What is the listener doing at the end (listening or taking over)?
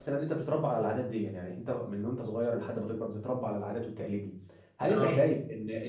listening